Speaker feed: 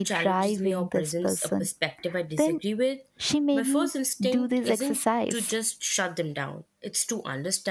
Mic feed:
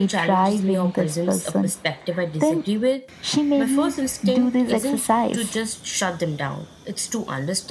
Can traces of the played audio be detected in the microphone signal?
Yes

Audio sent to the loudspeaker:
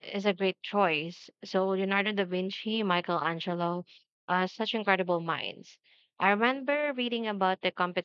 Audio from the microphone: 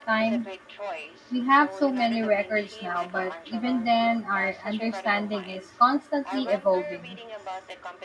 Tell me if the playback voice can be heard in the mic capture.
Yes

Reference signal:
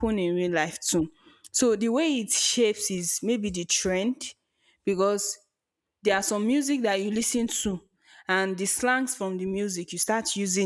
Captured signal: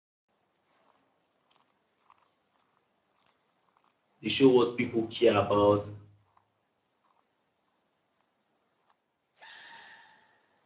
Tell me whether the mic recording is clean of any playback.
Yes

